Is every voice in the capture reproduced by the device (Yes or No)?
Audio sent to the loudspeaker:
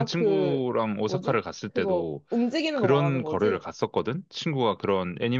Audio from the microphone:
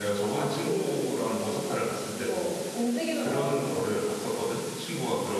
Yes